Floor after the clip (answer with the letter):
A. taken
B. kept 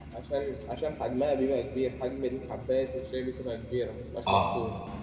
A